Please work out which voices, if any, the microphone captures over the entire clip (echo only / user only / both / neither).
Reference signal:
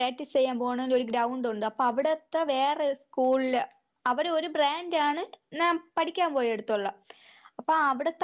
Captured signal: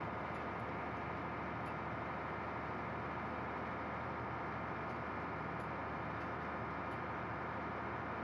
neither